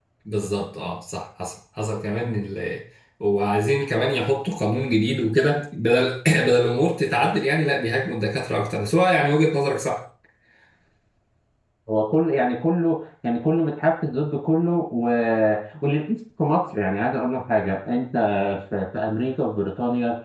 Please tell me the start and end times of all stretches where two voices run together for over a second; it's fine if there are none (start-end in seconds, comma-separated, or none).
none